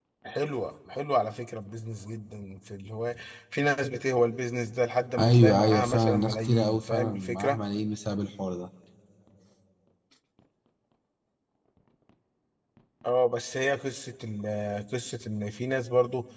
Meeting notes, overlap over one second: present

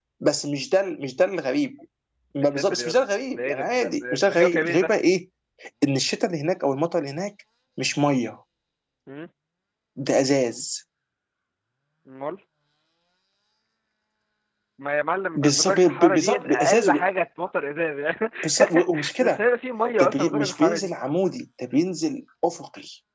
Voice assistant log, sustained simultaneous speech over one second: present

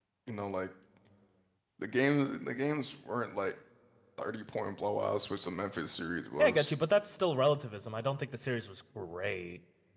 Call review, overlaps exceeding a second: none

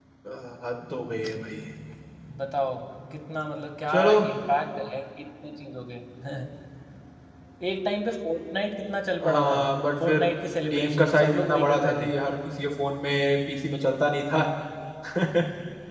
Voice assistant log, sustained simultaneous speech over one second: present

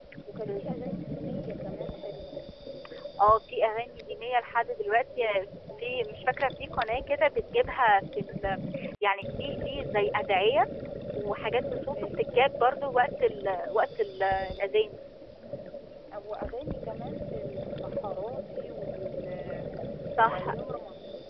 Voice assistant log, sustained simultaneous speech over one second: none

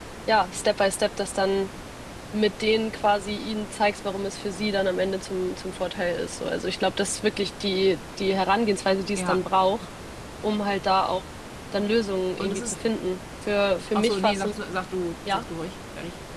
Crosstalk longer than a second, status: none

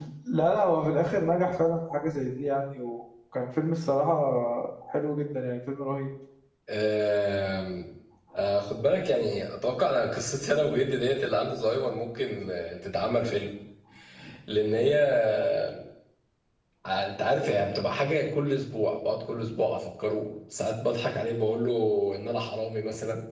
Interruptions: none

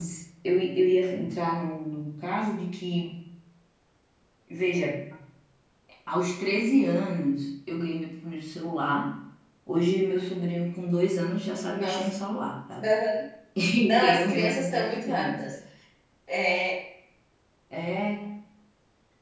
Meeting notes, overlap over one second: present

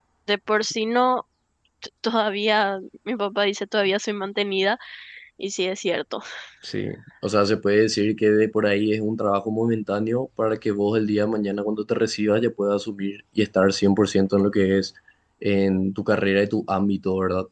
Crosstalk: none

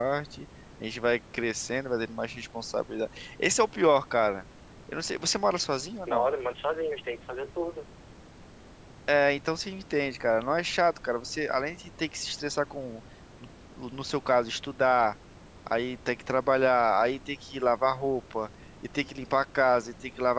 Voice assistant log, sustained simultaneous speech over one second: none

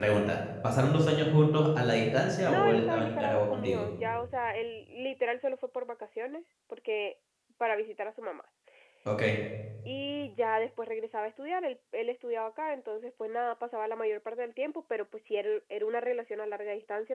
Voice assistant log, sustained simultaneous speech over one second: present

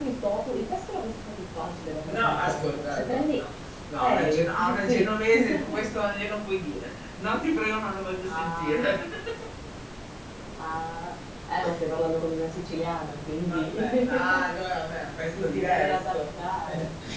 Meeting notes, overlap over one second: present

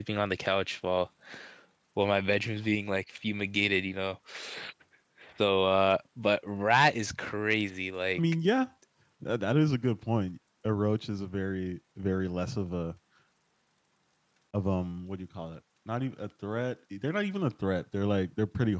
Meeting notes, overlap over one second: none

